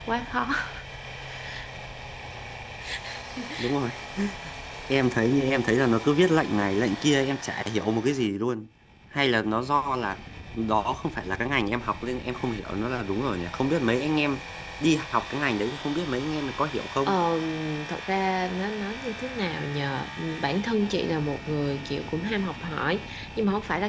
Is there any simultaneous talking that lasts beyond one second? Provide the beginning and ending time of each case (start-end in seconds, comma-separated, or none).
none